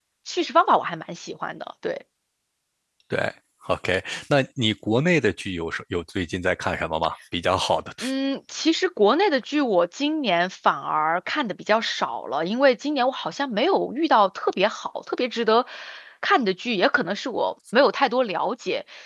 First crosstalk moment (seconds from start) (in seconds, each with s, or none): none